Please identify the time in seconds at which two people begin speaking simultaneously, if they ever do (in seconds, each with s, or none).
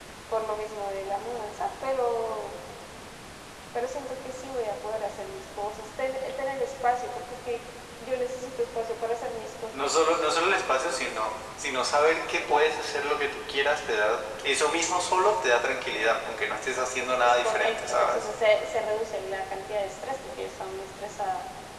17.0 s